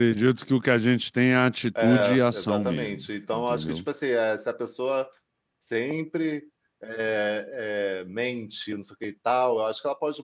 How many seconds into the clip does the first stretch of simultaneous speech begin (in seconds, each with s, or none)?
1.8 s